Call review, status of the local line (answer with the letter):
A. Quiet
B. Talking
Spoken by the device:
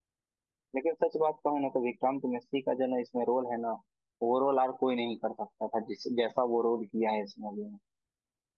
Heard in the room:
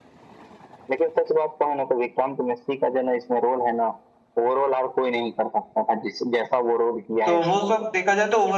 B